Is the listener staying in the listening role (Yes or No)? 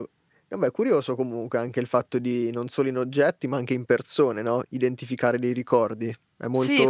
No